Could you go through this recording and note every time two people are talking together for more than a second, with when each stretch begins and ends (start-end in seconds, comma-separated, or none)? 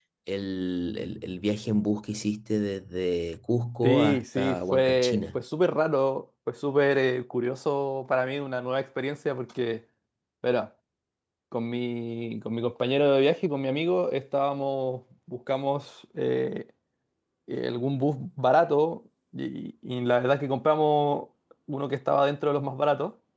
3.8-5.4